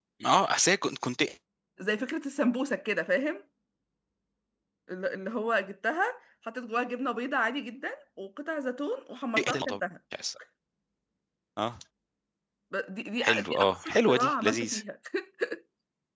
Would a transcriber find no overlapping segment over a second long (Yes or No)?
No